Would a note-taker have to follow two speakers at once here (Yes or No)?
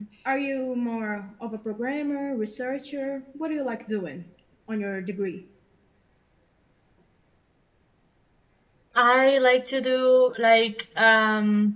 No